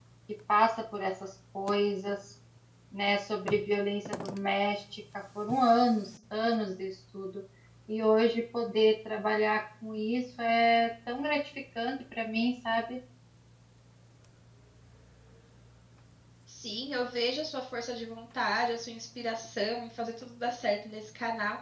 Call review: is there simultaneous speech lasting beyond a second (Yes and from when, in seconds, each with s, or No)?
No